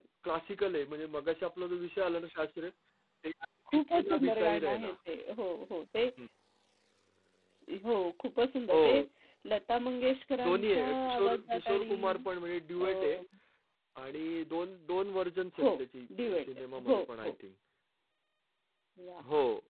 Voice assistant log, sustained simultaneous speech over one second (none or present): present